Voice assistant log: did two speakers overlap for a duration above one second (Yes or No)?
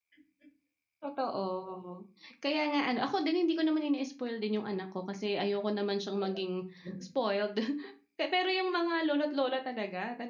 No